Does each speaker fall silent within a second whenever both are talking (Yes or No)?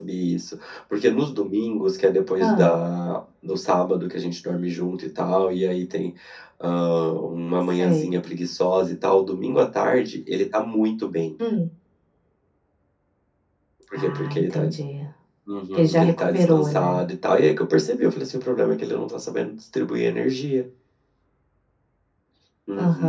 No